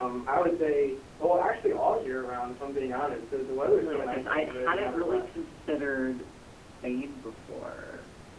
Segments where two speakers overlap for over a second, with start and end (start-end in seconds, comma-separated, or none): 3.7-5.2